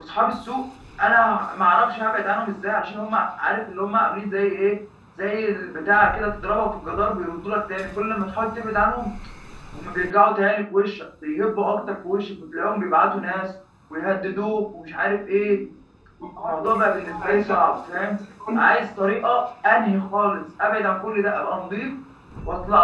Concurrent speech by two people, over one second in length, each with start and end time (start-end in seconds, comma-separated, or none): 16.4-17.7